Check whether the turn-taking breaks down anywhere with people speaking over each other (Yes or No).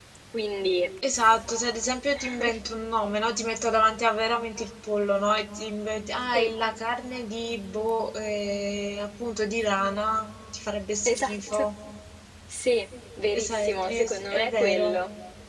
Yes